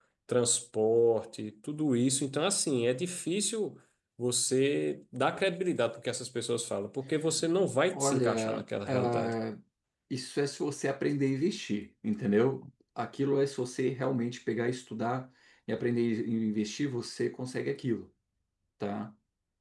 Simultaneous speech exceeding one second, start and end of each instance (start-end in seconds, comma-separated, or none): 7.9-9.3